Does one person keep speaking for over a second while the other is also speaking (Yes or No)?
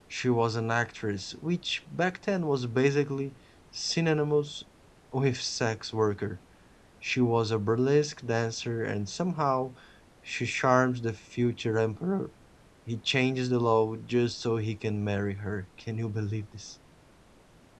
No